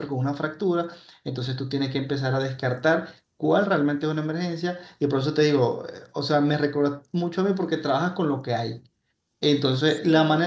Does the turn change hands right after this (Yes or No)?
No